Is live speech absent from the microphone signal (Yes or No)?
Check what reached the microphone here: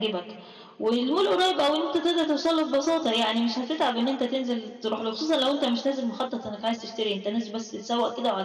Yes